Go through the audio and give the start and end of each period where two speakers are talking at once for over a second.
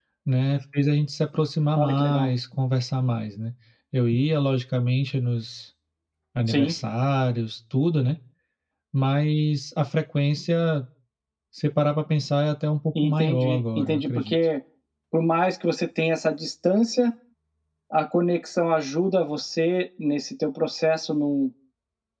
13.0-14.3

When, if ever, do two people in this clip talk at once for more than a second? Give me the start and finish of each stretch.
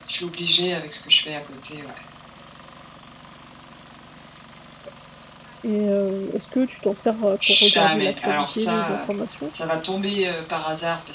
7.5-9.0

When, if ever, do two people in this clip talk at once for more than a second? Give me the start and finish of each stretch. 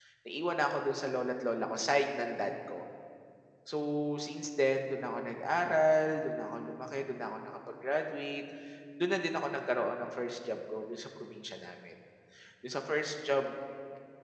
none

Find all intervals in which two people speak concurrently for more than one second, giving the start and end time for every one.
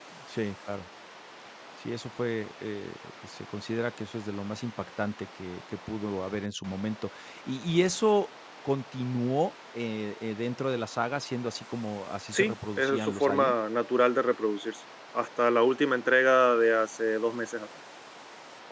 12.3-13.5

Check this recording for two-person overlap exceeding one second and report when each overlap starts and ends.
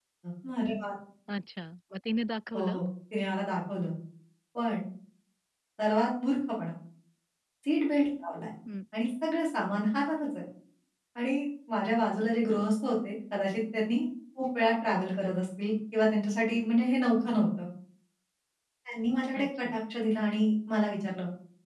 none

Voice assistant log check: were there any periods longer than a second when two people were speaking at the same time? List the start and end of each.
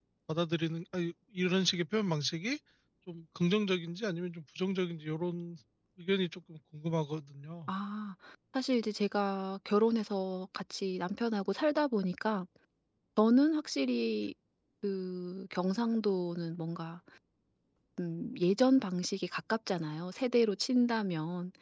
none

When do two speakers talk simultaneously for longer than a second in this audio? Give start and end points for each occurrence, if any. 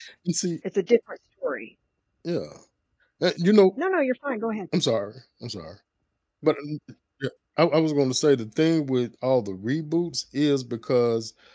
none

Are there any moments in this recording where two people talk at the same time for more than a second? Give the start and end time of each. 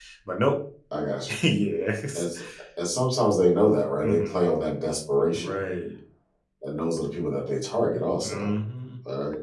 none

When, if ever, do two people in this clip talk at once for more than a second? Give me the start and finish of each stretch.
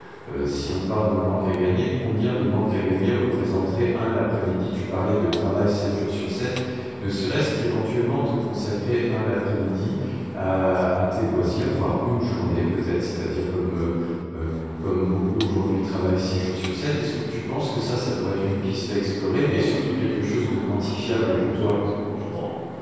19.5-21.7

